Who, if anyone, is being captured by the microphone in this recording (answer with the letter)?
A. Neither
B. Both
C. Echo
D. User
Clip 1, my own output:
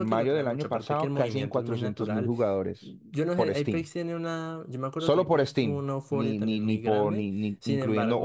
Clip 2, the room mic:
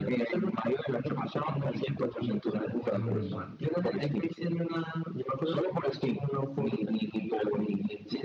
B